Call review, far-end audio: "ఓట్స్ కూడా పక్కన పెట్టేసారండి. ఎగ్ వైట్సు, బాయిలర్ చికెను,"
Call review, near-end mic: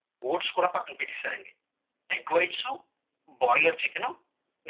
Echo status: present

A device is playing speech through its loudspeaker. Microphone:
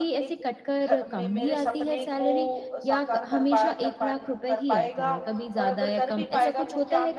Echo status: present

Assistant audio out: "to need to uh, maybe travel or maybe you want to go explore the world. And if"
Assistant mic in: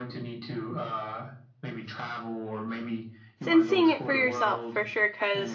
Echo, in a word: present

